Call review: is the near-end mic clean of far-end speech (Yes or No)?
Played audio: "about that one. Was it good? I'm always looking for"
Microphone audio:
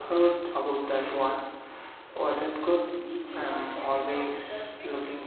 No